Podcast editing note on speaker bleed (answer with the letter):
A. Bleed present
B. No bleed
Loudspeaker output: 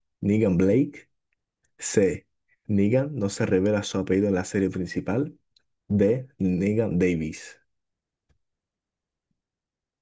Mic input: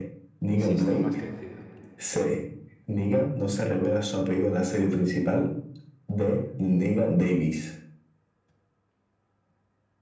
A